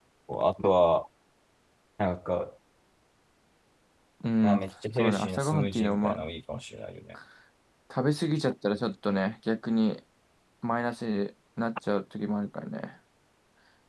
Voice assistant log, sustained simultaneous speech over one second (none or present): present